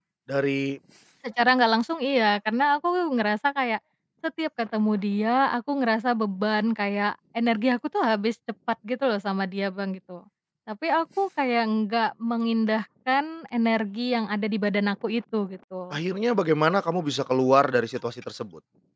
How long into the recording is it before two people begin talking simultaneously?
none

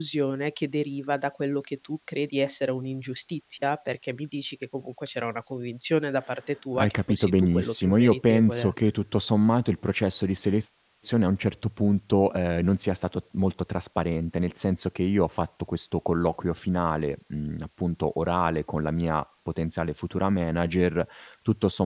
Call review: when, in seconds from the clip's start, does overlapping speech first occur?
7 s

